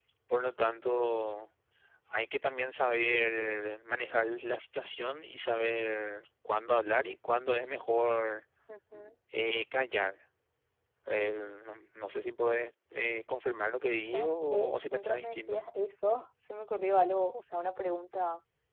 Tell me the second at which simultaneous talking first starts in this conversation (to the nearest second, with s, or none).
14 s